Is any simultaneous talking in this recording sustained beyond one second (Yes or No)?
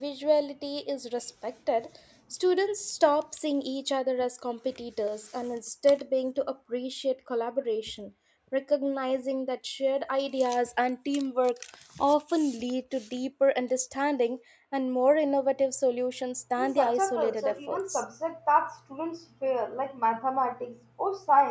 Yes